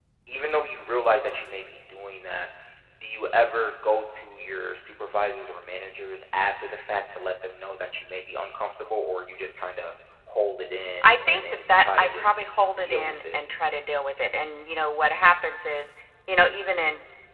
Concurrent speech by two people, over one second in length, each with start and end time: 11.0-12.3

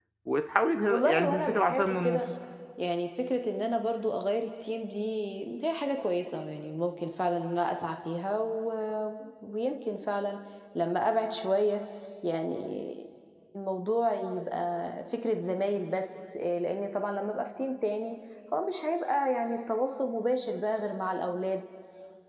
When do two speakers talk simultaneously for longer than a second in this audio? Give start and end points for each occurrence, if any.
0.9-2.2

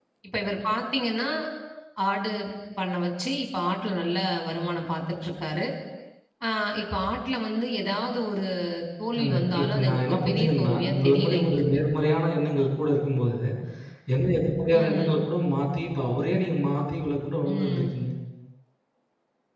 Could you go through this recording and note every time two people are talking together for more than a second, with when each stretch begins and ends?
9.1-11.6

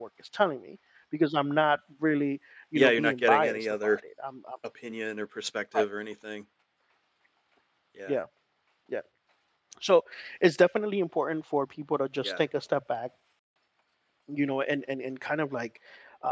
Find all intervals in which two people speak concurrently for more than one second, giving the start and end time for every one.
2.8-4.0

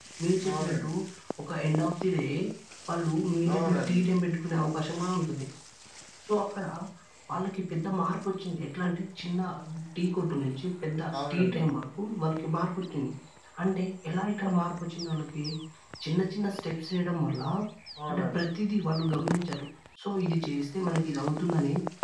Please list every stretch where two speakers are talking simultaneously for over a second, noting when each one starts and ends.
none

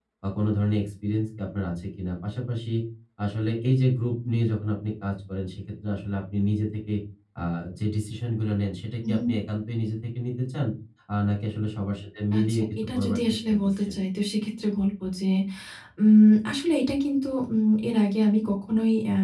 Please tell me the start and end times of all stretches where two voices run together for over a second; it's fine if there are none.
12.4-13.9

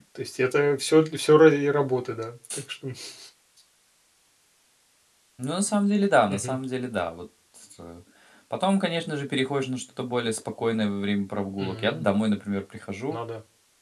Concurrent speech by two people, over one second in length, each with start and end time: none

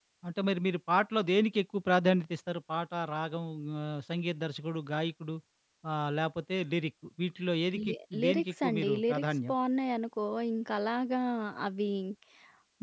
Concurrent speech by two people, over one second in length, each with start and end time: 7.9-9.5

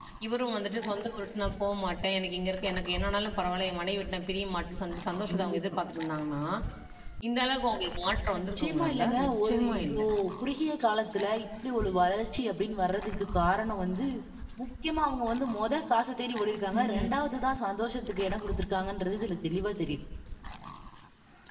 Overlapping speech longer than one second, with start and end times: 8.3-10.0

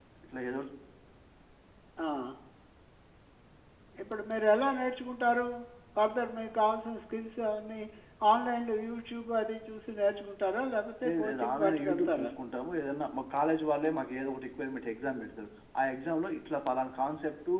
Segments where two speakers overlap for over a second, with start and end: 11.0-12.3

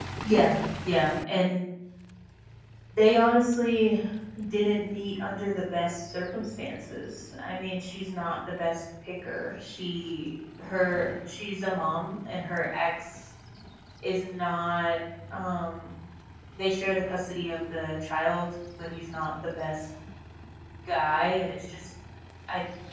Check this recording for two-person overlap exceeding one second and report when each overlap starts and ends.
none

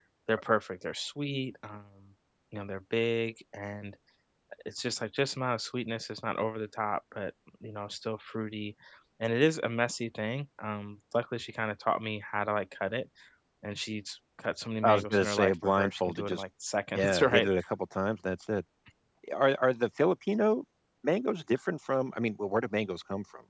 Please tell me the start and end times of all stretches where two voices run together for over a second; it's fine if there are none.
14.8-16.4

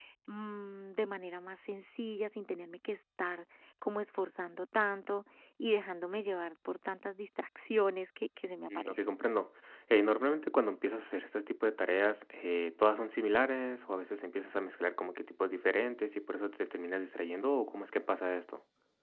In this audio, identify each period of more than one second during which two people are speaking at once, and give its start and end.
none

